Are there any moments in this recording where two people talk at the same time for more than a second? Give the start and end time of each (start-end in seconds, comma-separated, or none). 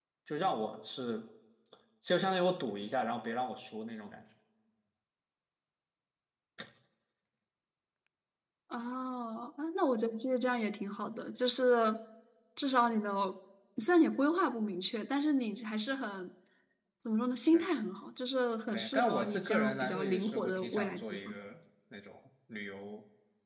18.7-21.3